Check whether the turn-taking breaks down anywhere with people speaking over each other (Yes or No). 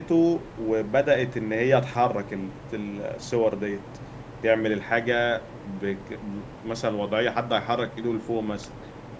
No